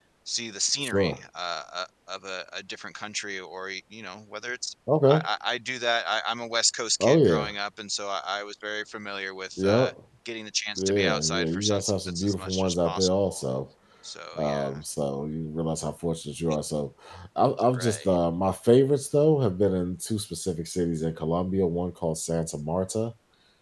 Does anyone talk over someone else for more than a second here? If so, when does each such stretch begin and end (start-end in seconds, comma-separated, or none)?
10.8-13.4